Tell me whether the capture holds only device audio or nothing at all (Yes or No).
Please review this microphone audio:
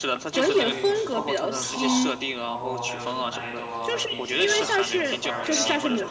No